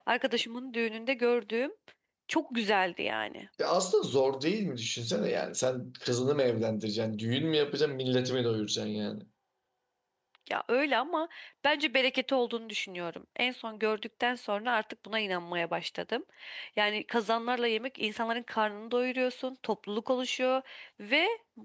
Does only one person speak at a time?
Yes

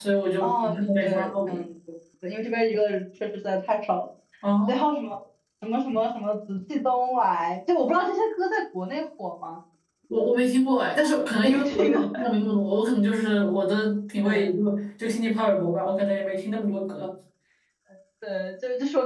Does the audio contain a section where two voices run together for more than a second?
Yes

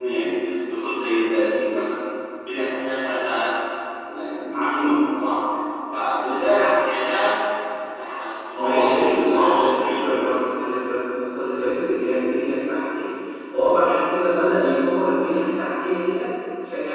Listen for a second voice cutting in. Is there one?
Yes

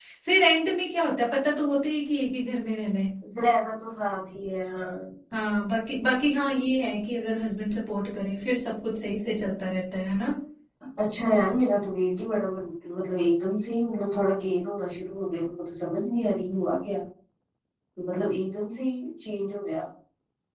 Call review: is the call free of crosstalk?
Yes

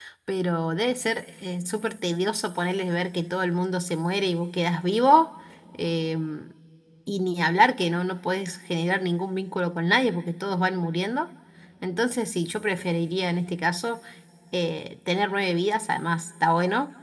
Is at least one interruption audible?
No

